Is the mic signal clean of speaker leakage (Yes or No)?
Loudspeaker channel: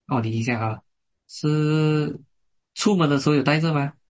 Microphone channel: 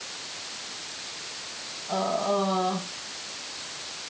Yes